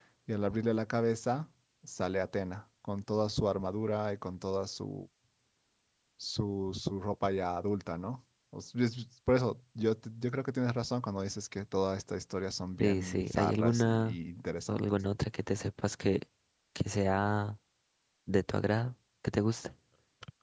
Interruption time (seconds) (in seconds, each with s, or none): 12.8 s